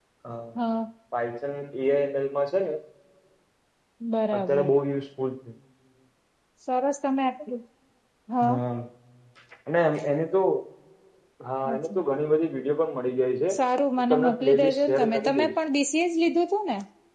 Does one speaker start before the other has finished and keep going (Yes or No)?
Yes